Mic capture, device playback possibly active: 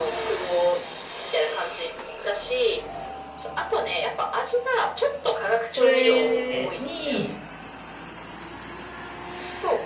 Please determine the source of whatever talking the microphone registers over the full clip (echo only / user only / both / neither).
both